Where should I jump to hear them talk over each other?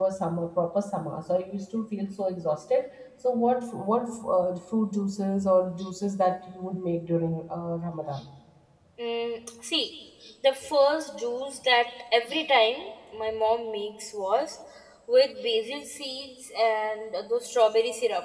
none

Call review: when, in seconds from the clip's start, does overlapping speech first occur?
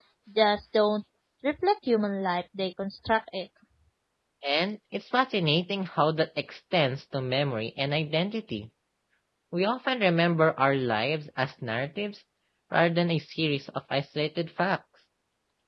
none

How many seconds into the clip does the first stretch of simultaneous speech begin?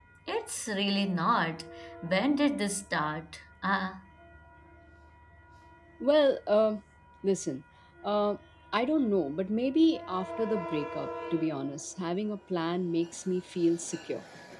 none

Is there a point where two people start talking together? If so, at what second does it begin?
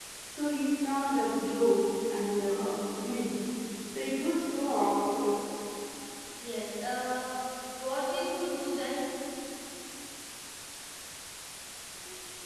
none

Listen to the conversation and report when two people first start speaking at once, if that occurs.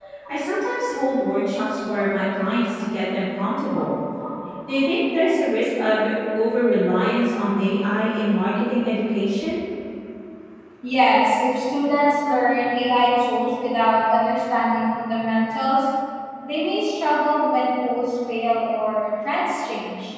none

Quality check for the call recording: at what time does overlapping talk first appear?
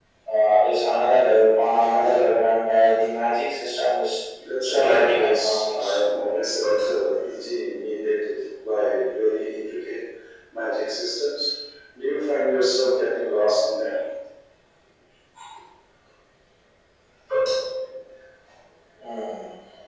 5 s

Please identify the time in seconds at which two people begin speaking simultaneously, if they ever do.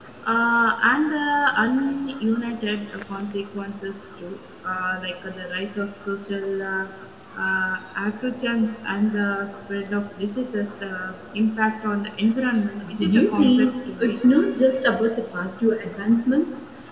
13 s

